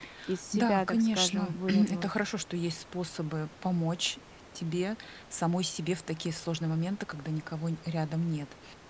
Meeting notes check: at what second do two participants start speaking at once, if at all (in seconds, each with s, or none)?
0.5 s